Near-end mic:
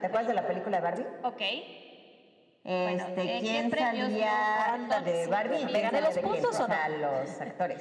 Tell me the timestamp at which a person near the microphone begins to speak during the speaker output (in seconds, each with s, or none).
4.5 s